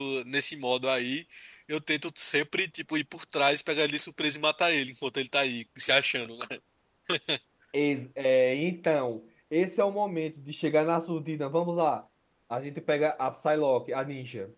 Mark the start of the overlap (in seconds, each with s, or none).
none